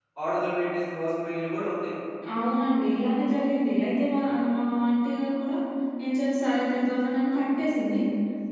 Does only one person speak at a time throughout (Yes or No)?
Yes